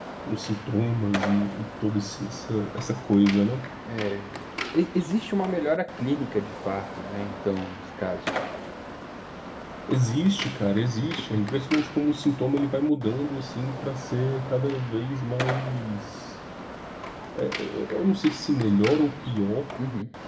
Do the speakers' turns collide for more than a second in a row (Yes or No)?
No